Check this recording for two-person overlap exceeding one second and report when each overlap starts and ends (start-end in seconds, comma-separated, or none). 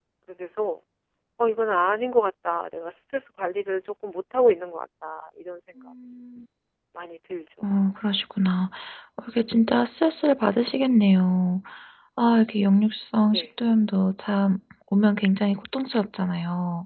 none